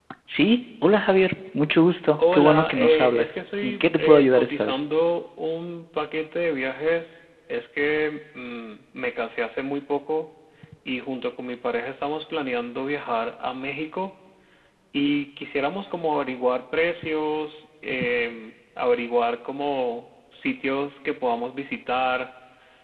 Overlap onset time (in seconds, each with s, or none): 2.2 s